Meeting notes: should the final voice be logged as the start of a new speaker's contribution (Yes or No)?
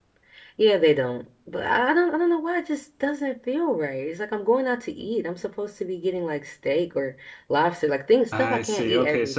Yes